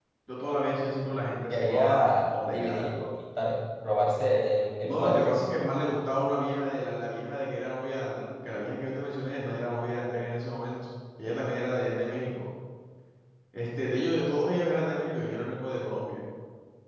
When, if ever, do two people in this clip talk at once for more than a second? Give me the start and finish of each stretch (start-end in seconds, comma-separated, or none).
1.5-2.9